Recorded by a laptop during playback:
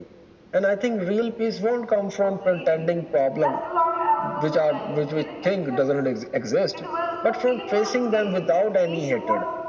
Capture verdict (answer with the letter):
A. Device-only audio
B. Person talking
B